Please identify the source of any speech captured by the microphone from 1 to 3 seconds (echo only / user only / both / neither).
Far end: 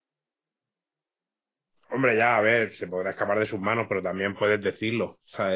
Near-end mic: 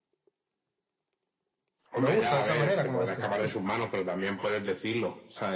both